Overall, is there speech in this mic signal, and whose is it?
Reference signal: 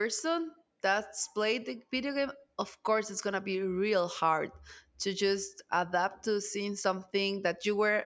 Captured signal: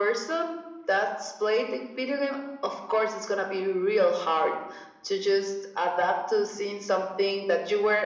echo only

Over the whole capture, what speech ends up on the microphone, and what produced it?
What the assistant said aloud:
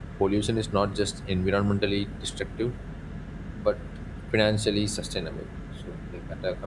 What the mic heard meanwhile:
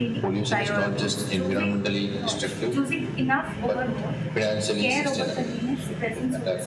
both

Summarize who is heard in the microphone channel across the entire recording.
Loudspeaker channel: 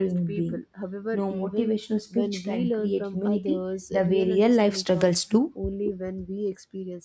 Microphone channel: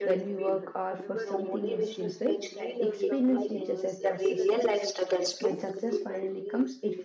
both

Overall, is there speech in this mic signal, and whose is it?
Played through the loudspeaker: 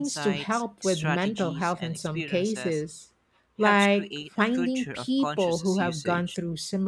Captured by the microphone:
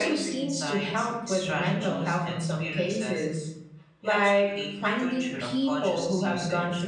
echo only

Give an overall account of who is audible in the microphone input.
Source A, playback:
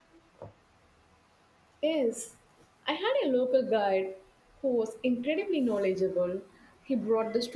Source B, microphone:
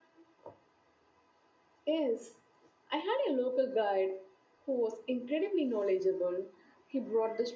echo only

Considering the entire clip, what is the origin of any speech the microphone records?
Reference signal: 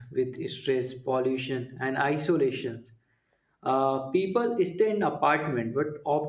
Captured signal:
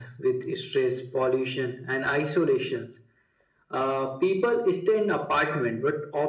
echo only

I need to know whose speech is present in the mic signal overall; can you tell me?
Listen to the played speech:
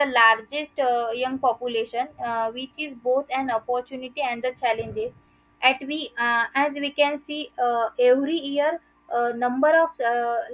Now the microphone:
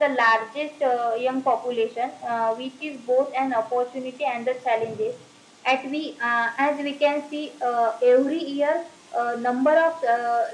echo only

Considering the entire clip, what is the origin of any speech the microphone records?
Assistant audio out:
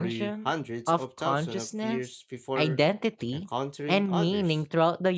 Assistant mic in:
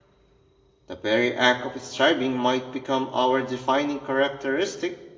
user only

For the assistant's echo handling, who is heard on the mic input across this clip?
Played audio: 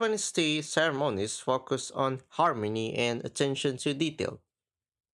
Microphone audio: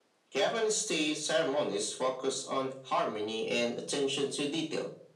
echo only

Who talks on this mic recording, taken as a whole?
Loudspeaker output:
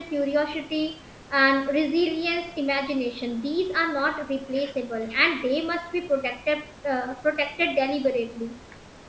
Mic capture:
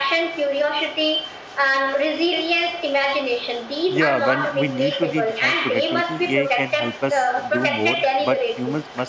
both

